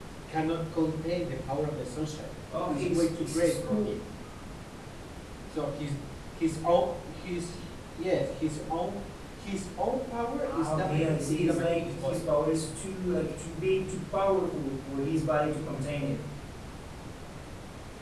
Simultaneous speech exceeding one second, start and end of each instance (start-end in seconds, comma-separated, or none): 2.7-3.9, 10.4-12.2